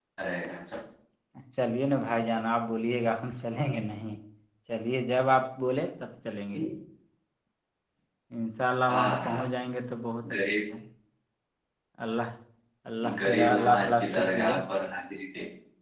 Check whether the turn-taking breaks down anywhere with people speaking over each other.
Yes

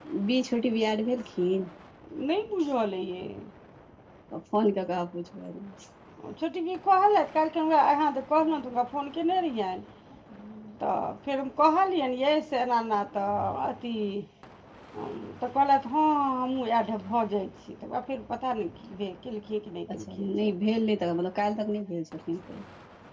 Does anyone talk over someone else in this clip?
No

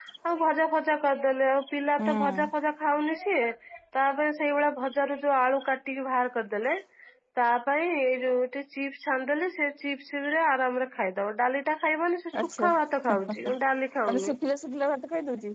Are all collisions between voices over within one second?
Yes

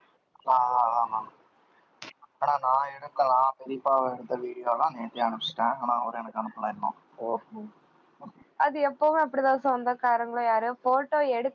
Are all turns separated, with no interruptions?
Yes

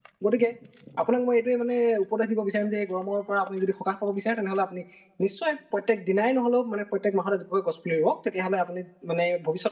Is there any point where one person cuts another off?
No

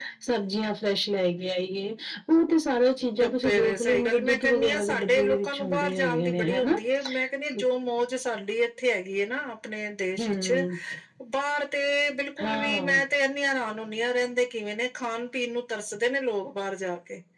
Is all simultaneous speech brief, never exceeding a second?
No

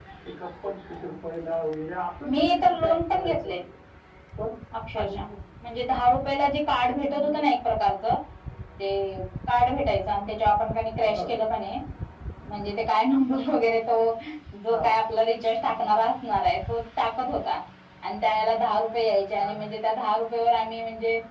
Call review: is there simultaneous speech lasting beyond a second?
Yes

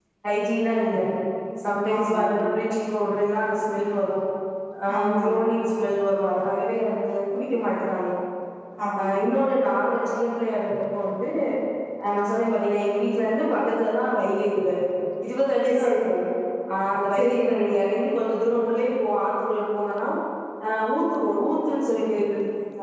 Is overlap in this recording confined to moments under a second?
Yes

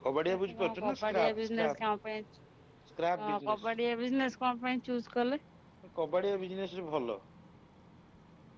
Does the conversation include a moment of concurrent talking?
Yes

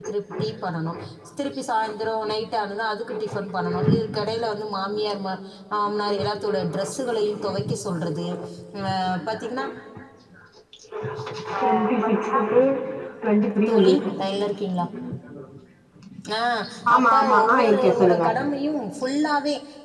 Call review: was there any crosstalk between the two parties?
Yes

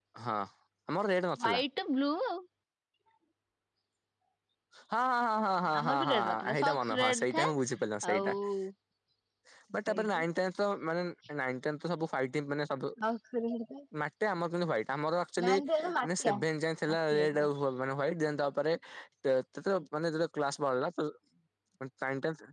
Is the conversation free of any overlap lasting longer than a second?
No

